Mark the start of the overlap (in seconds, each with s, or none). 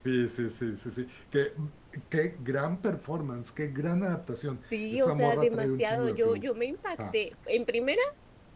4.7 s